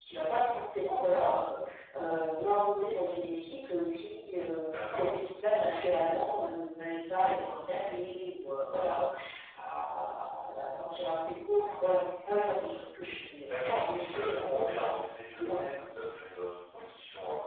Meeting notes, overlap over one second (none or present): present